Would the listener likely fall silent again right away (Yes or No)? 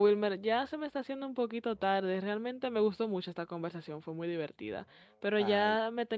Yes